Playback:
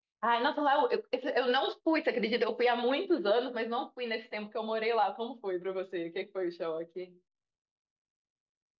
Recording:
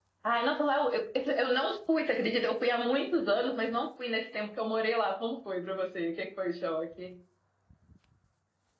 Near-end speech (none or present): none